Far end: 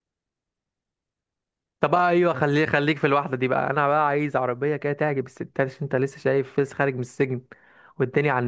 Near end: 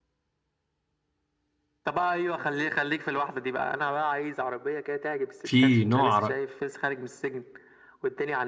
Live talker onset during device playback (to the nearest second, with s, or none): 5 s